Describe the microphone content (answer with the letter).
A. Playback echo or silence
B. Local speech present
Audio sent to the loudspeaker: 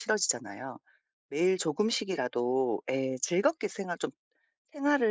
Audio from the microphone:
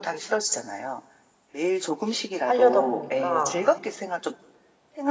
B